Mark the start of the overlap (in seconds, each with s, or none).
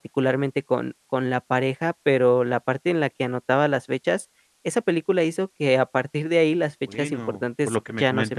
6.9 s